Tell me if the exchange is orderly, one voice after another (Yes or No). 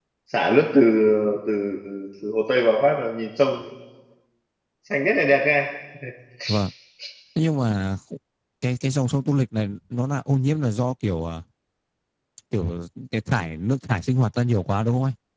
Yes